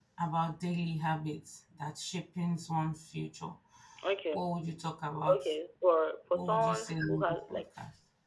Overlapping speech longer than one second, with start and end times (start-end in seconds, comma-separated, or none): 6.3-7.6